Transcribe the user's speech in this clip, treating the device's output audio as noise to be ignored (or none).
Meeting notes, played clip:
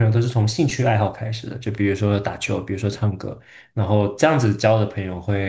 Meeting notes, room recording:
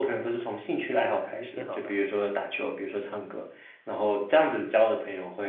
出去，出去挺好的。